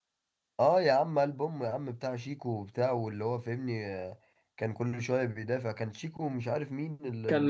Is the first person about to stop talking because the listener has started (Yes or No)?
Yes